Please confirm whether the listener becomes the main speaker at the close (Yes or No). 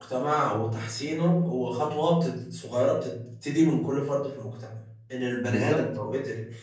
No